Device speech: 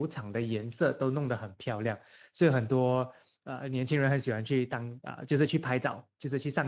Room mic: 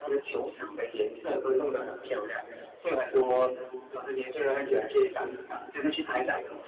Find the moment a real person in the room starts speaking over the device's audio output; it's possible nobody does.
none

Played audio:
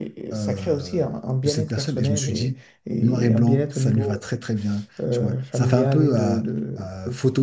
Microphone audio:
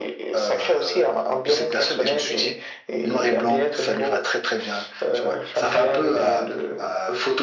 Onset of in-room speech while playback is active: none

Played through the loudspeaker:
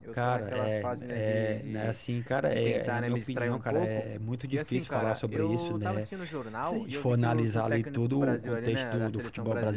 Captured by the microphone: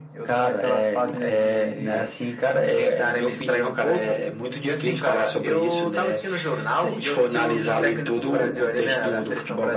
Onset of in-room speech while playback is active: none

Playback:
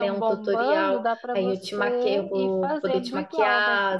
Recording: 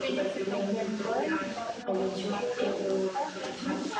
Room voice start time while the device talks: none

